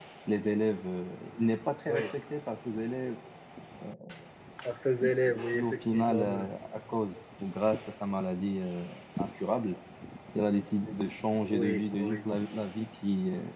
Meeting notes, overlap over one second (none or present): present